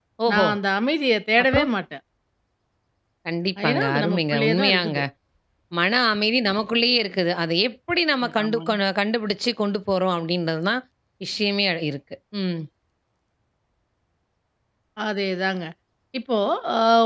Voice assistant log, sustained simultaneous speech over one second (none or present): present